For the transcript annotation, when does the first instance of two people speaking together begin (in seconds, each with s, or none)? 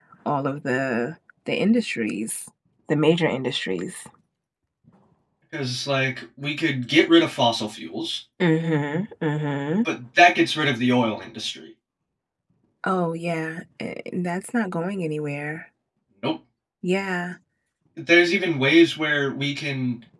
none